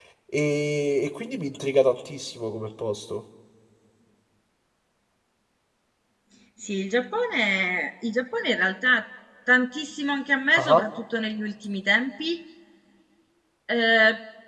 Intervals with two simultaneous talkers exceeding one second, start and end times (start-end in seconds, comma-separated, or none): none